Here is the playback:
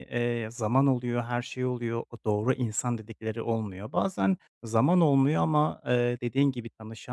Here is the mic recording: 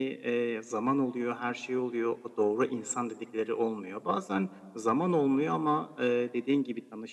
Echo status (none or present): present